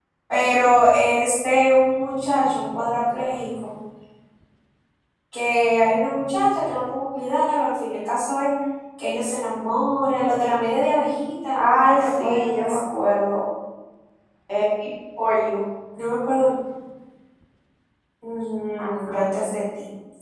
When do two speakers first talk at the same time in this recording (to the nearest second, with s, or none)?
12 s